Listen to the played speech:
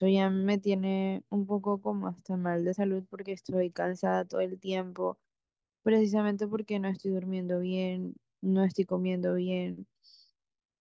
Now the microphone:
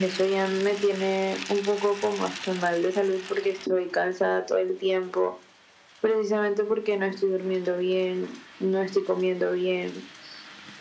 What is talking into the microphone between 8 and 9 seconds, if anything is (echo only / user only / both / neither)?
echo only